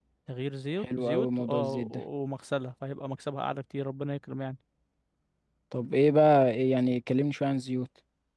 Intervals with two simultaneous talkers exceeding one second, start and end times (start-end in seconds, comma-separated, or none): 0.8-2.0